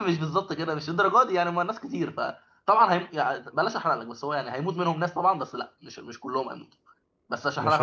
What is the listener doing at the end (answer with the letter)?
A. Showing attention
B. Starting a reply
B